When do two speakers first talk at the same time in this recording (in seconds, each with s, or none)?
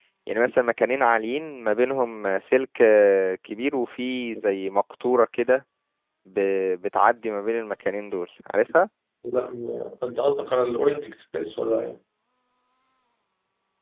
none